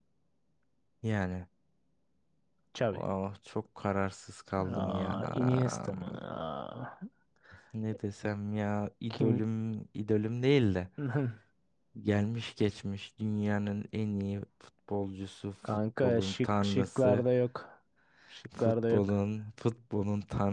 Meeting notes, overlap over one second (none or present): present